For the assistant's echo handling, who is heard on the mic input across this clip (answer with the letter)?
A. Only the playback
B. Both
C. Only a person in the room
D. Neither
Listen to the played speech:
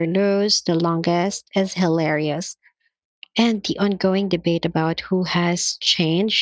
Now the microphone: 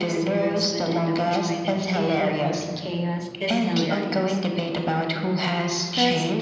B